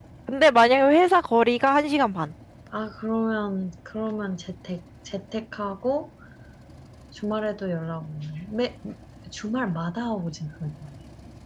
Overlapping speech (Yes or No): No